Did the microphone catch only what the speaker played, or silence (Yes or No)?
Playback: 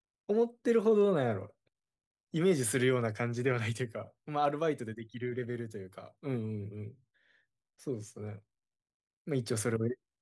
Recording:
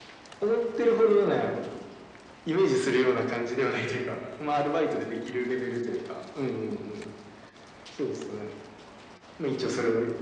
Yes